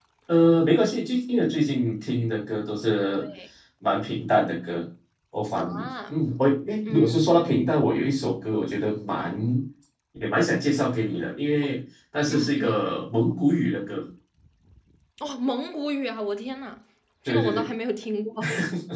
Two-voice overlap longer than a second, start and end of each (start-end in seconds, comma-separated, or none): none